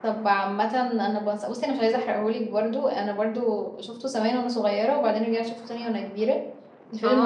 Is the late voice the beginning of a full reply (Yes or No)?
Yes